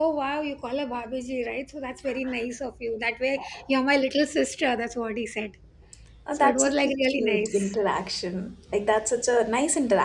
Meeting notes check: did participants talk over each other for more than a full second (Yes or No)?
Yes